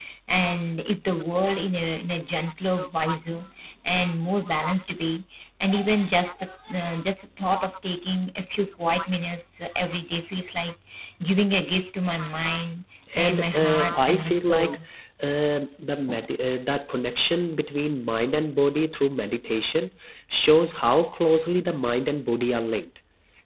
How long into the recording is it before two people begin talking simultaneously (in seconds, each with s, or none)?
13.1 s